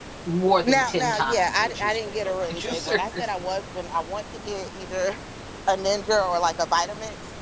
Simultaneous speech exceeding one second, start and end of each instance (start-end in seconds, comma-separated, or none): 0.7-3.0